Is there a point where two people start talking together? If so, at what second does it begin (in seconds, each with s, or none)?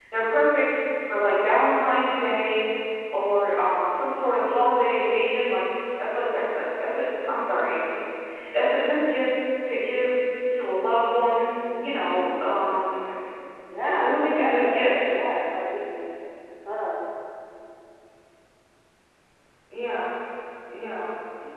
13.8 s